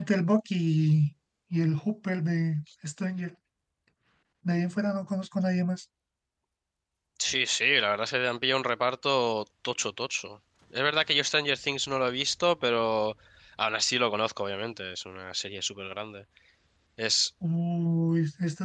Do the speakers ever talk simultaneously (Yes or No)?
No